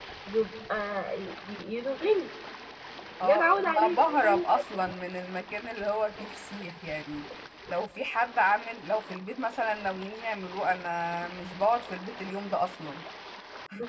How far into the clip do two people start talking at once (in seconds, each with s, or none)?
3.2 s